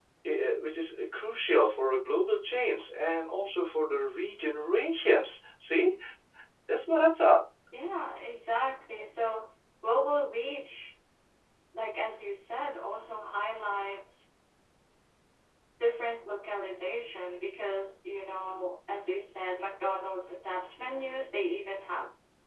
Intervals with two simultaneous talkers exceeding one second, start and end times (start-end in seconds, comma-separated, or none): none